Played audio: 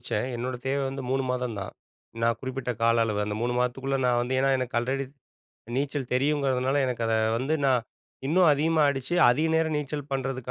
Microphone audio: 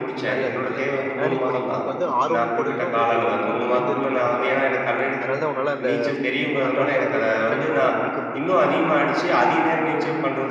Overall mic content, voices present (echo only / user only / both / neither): both